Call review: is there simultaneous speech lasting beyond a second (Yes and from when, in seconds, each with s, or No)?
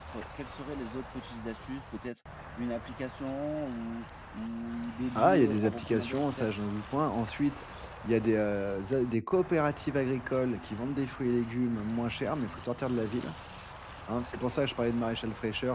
Yes, from 5.2 s